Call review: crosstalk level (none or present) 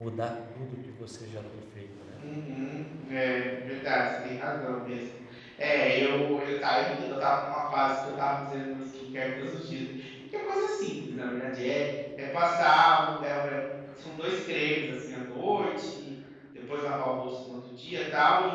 none